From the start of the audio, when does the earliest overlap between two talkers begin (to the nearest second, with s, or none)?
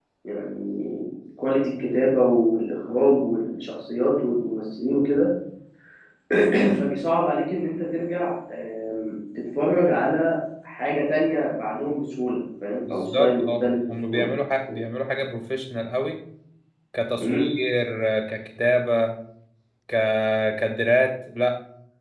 13 s